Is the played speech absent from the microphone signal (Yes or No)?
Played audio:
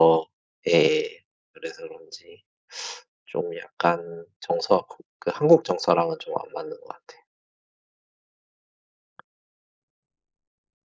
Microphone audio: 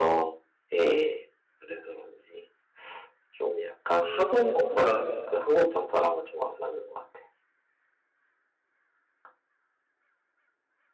No